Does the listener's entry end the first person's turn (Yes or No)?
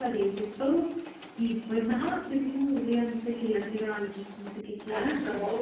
Yes